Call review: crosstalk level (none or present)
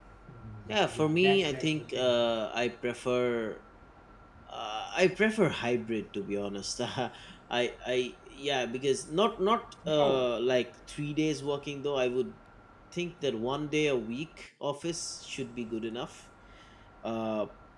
present